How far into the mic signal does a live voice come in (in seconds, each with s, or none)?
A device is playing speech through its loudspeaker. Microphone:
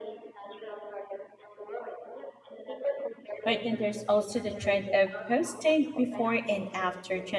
3.4 s